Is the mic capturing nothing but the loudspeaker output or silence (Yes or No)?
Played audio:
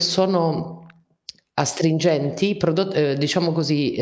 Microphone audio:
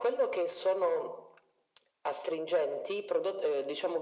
Yes